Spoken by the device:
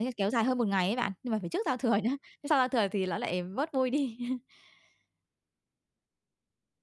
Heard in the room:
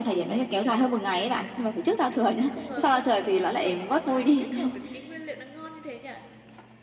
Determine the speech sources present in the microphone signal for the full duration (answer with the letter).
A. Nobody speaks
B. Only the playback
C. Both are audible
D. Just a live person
C